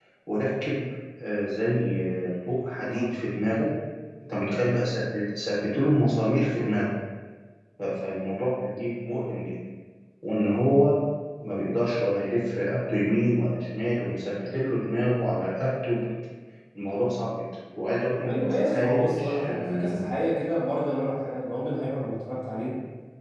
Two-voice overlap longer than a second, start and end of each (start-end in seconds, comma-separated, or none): 18.2-20.0